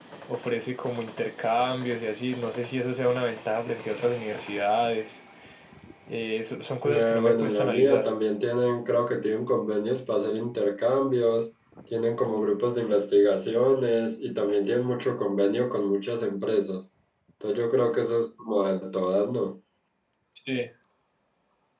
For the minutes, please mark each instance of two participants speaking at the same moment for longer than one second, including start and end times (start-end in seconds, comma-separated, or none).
6.8-8.1